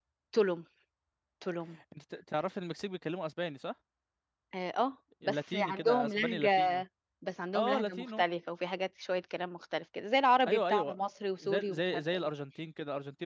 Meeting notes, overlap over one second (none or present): present